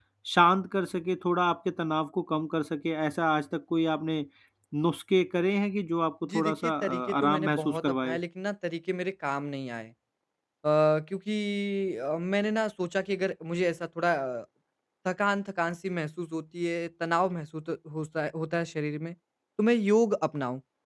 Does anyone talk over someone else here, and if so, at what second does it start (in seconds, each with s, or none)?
6.2 s